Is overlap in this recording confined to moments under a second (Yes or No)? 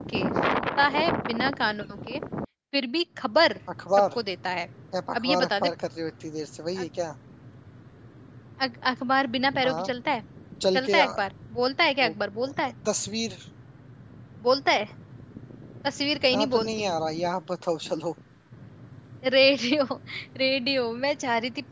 Yes